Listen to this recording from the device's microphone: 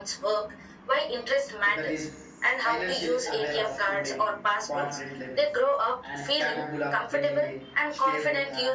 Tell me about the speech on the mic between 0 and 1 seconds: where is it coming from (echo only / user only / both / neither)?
echo only